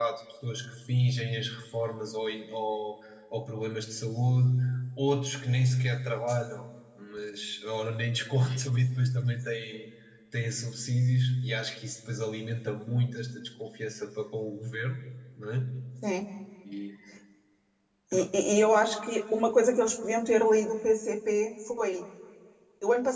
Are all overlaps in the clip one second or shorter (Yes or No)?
Yes